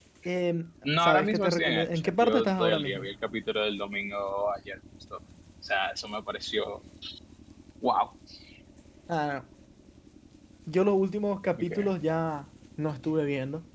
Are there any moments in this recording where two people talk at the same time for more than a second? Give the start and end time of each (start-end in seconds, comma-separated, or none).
1.0-3.0